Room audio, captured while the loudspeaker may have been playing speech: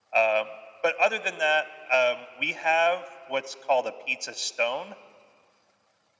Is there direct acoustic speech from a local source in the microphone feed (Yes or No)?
No